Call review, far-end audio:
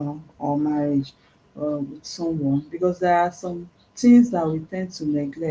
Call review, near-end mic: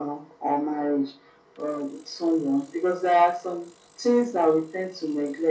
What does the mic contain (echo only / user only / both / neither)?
echo only